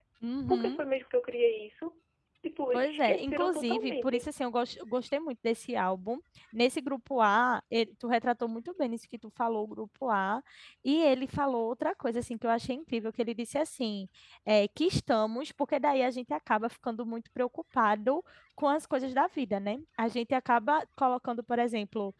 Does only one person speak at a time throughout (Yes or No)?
No